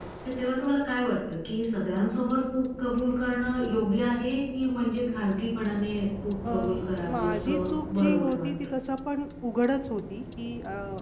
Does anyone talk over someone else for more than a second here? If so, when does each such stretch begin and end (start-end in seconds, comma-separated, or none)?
7.1-8.7